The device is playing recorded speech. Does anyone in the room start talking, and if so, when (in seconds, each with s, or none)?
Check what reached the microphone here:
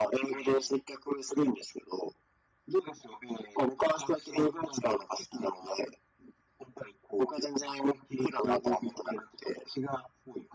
none